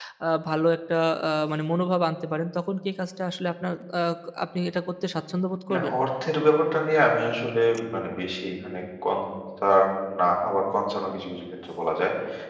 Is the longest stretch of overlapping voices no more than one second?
Yes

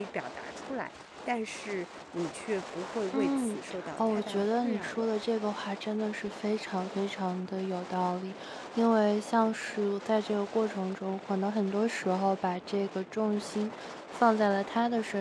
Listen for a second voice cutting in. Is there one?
Yes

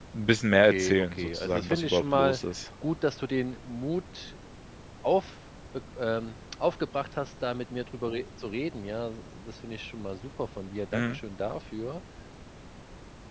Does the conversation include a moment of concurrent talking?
Yes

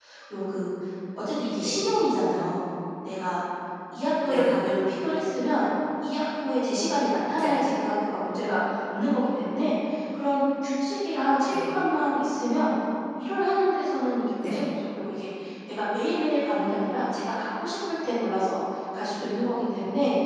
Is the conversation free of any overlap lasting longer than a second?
Yes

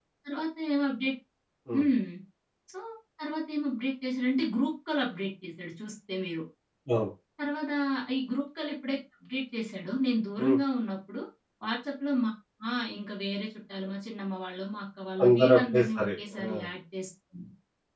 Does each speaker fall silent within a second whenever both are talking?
No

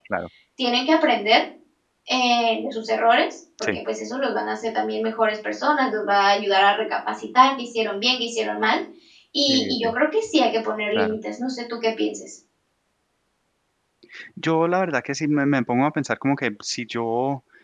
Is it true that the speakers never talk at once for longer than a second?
Yes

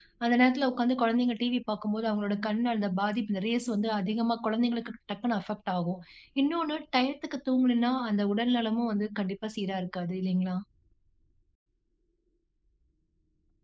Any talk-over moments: No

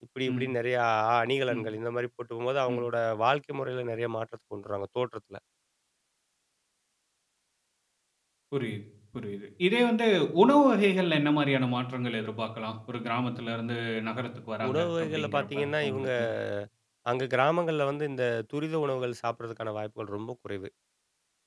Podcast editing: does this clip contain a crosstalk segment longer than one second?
Yes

